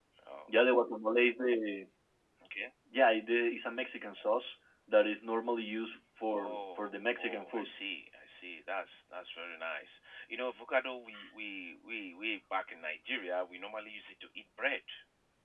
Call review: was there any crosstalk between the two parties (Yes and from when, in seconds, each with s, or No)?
Yes, from 6.3 s